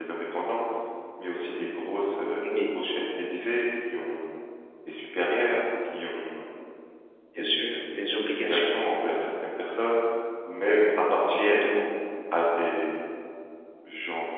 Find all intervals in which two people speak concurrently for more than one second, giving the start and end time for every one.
7.4-8.7

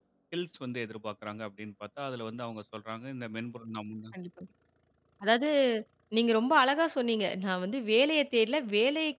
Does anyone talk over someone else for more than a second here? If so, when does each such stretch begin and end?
none

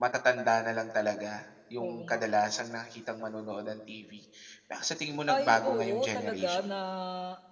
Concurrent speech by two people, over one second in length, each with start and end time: 5.3-6.7

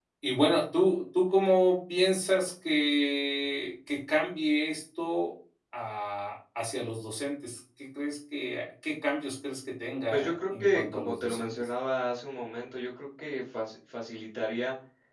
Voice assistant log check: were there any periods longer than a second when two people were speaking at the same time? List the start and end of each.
10.1-11.7

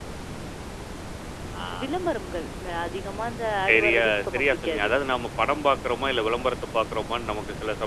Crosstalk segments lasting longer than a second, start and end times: 3.7-4.9

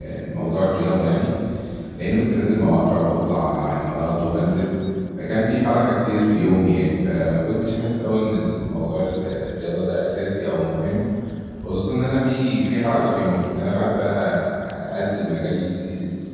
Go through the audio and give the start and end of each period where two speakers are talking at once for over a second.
none

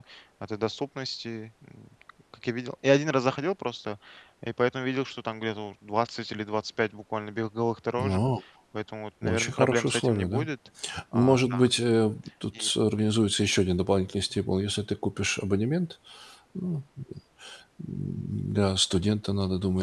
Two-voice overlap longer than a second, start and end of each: 9.2-10.4

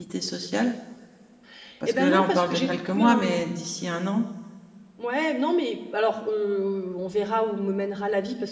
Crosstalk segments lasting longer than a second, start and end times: 1.8-3.4

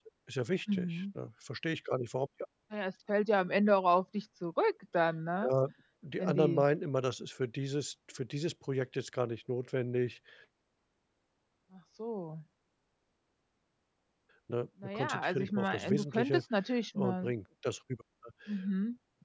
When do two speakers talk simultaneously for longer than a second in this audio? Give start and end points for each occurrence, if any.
14.8-16.4

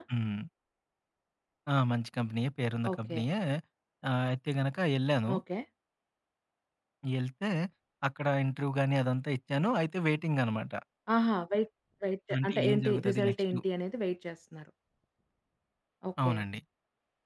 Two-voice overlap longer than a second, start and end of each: 12.4-13.6

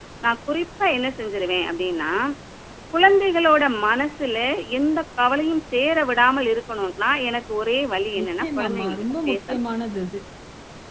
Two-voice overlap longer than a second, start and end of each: 8.2-9.6

